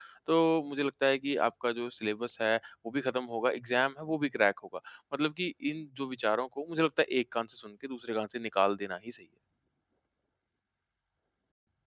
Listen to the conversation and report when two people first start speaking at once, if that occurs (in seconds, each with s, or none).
none